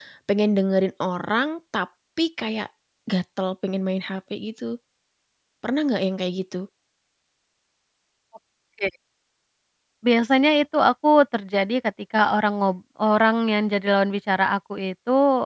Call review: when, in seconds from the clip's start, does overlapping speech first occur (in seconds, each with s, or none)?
none